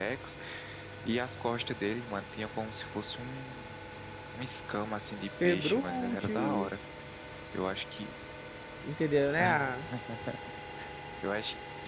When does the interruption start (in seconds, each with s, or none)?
5.4 s